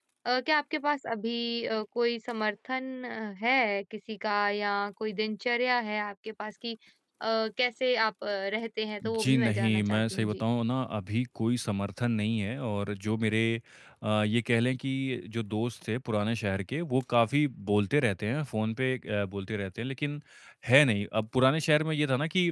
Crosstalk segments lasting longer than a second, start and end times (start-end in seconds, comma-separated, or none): 9.2-10.4